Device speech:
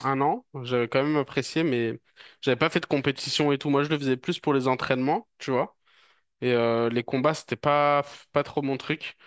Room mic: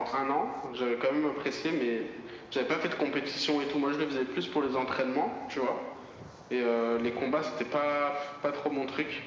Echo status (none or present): present